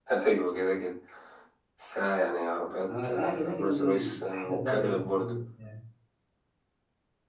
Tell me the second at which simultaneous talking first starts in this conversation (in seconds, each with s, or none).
2.9 s